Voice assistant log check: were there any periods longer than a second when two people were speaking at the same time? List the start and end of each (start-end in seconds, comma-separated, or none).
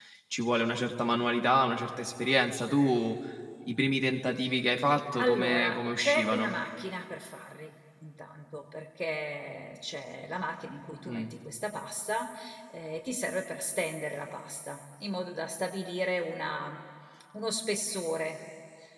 5.2-6.5